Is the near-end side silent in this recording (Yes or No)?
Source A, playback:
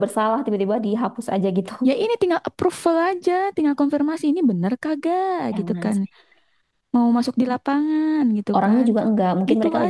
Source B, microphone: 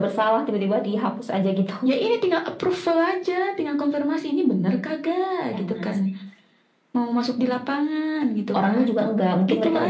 Yes